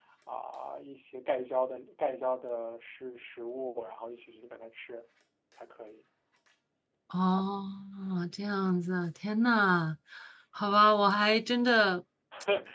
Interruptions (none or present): none